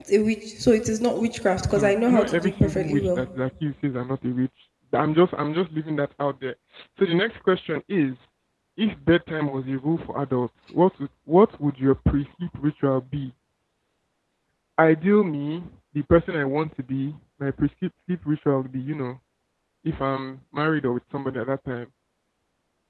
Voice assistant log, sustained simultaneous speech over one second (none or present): present